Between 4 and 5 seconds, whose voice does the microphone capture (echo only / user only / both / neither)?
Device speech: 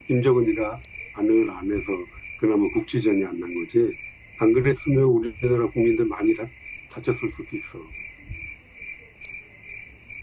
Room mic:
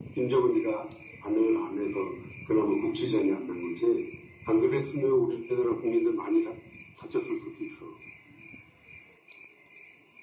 echo only